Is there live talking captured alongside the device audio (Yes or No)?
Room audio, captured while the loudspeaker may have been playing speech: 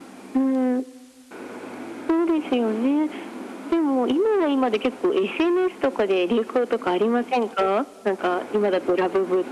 No